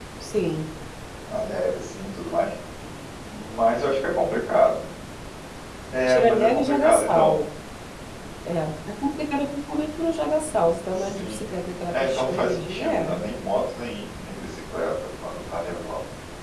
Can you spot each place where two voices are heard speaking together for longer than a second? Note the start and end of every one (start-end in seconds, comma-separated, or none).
6.1-7.3, 11.9-13.2